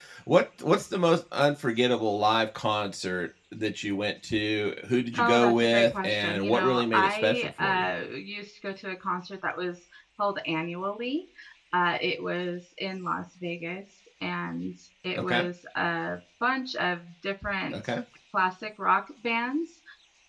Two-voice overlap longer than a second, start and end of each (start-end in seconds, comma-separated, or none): 5.2-7.9